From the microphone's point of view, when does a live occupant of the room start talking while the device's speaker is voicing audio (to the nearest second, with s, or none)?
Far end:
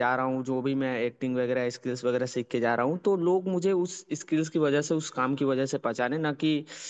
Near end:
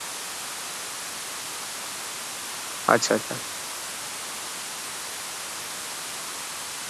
3 s